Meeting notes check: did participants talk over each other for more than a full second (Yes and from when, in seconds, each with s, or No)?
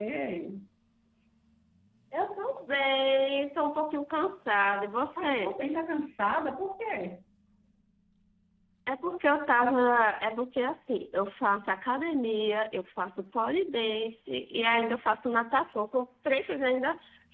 No